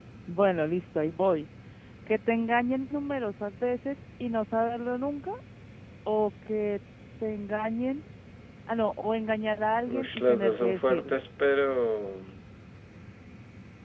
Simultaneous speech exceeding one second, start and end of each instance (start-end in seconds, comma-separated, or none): 9.9-11.2